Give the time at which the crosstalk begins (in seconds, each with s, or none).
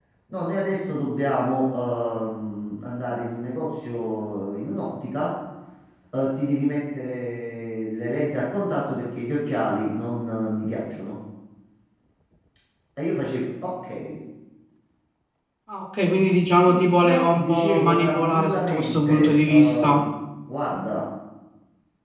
16.7 s